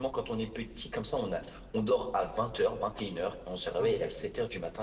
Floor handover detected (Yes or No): No